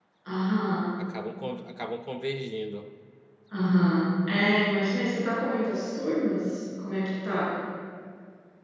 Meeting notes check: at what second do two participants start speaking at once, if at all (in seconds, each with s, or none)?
none